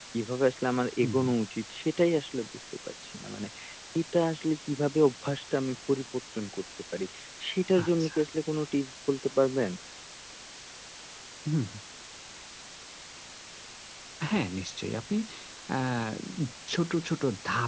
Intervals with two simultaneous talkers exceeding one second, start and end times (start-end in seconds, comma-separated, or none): none